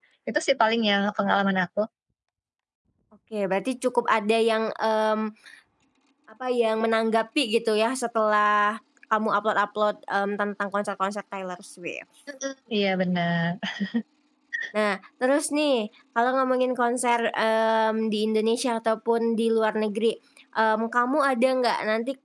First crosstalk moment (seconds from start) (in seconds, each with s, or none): none